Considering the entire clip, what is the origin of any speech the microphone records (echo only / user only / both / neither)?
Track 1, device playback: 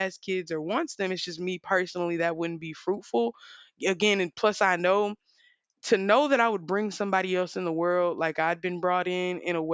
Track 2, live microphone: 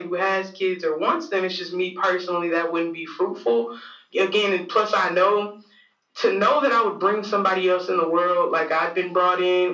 echo only